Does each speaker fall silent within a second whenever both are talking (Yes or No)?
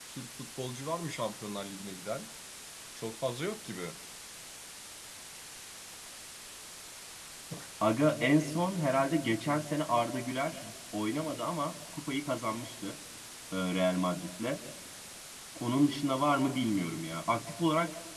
Yes